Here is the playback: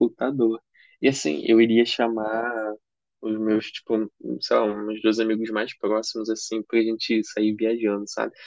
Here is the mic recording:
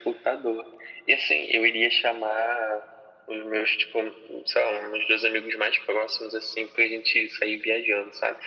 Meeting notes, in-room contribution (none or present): none